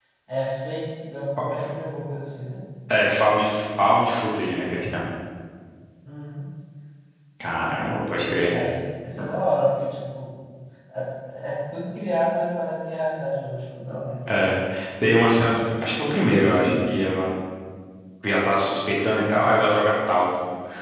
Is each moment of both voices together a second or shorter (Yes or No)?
Yes